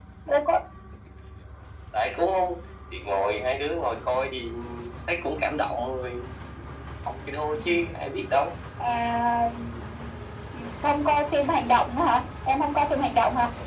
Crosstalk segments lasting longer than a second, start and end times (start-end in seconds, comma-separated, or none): none